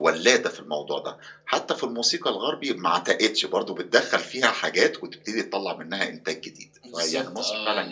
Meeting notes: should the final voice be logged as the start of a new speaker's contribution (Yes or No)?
Yes